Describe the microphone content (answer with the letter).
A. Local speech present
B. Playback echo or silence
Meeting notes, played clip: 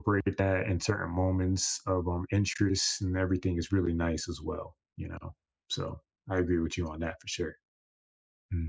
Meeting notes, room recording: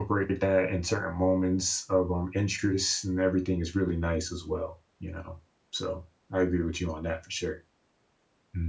B